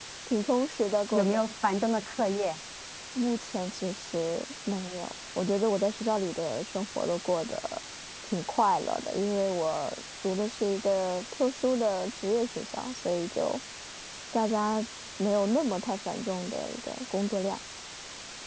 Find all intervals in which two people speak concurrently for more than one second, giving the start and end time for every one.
none

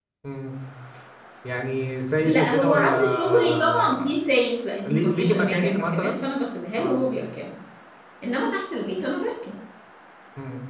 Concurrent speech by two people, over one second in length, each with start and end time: 2.2-4.2, 4.8-6.2

